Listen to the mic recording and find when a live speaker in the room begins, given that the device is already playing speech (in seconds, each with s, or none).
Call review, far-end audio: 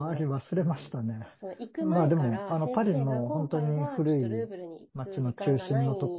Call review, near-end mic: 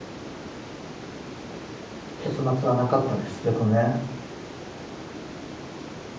2.2 s